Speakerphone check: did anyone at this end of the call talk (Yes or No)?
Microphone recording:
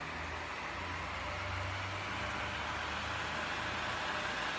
No